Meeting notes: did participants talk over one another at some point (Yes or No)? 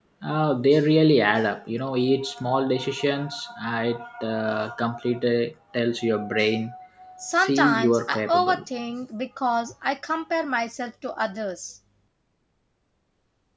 Yes